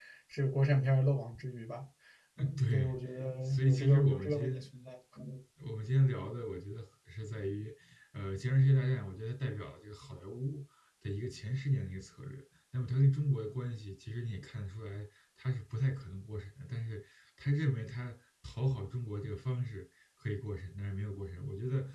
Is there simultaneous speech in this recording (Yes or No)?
Yes